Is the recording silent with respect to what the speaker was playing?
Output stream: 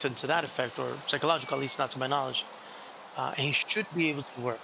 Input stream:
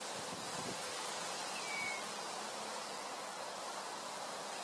Yes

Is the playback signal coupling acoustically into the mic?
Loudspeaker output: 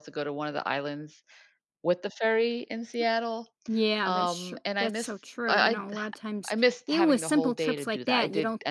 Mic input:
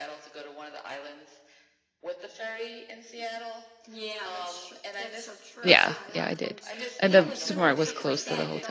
Yes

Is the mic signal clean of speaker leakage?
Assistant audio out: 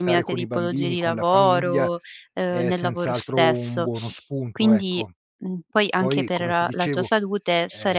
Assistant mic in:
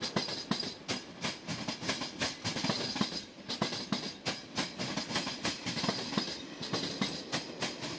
Yes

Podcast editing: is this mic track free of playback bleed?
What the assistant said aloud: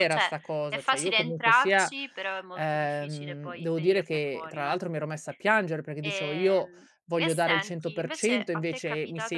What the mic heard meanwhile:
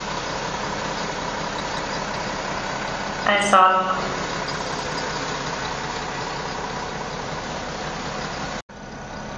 Yes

